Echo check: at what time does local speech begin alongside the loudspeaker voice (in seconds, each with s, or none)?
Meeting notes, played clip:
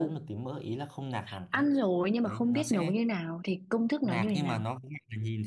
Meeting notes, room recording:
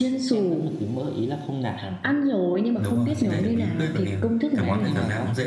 2.8 s